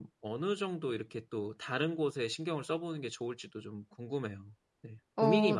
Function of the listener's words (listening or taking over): taking over